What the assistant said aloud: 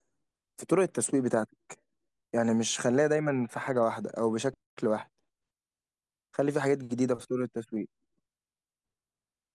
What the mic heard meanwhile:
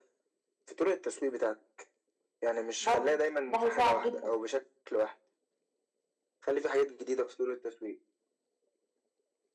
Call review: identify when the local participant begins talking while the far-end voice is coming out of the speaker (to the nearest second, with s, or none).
3 s